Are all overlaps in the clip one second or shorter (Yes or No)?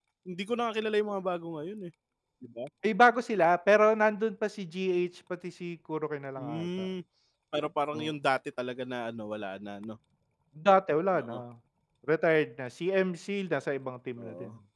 Yes